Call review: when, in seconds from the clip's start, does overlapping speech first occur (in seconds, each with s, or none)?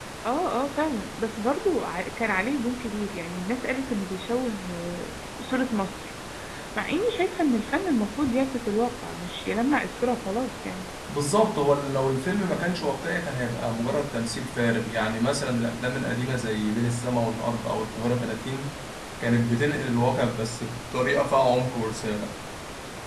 none